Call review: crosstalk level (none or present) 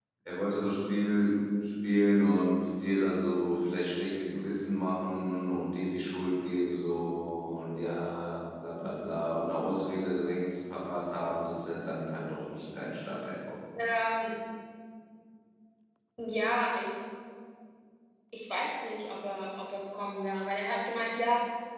none